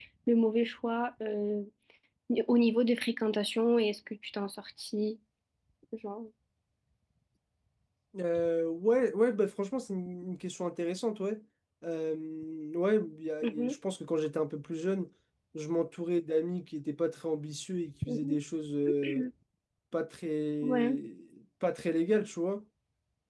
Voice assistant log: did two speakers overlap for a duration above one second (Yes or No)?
No